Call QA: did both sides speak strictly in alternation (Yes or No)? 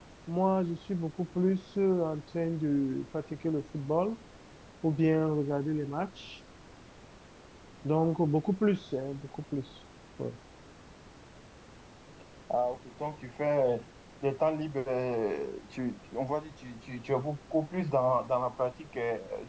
Yes